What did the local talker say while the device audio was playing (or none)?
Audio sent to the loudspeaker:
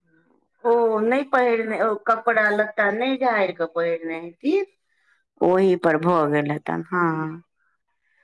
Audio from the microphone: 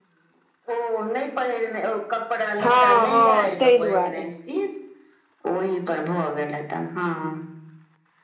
हँ हँ ताहि दुआरे